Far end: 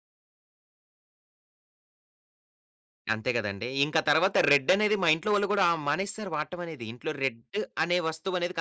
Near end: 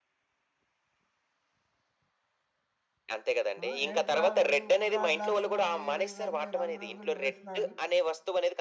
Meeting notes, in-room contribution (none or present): present